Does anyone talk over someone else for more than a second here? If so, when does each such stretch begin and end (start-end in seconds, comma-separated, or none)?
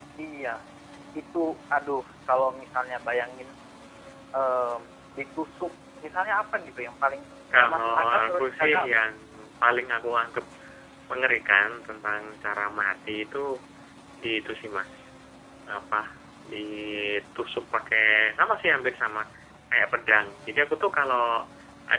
7.5-8.9